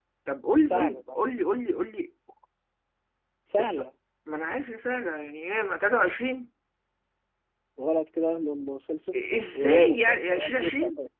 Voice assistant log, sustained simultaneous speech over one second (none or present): present